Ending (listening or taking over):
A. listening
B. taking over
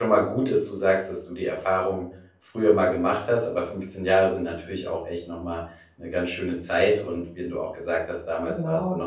A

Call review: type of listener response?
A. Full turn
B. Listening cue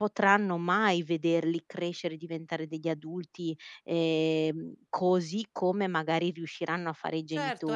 A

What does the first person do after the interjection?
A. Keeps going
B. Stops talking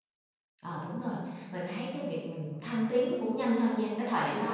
A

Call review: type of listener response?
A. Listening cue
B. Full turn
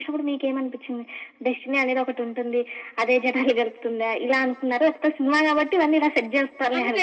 B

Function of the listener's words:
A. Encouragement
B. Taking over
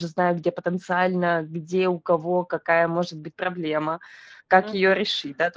B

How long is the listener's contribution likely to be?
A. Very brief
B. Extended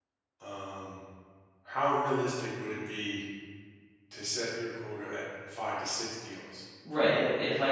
B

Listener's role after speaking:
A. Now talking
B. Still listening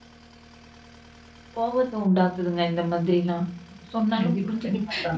A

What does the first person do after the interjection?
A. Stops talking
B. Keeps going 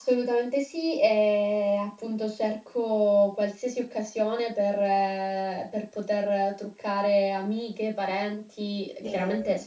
B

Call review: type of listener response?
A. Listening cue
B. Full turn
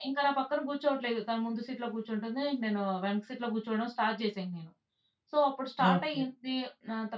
A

